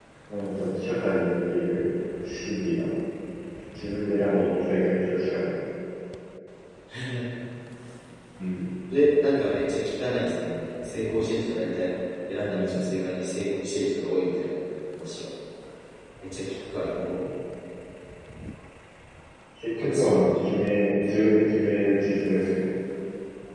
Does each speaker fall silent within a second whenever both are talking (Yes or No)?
No